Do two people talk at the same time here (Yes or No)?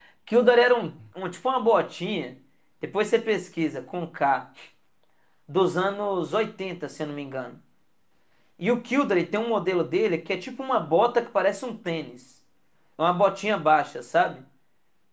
No